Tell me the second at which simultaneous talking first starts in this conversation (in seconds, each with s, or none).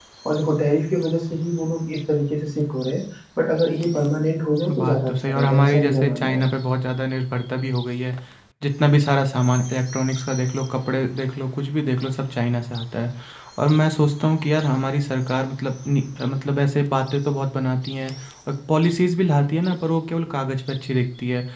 4.7 s